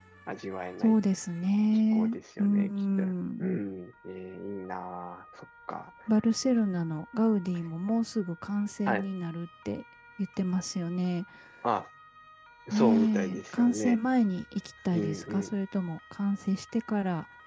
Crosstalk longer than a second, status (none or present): present